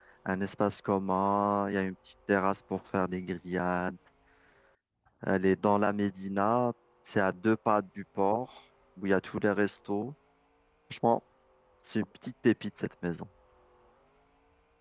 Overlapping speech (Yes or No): No